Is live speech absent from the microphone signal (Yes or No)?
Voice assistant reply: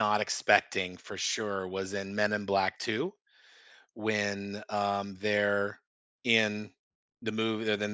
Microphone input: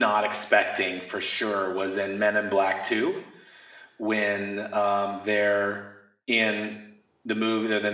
Yes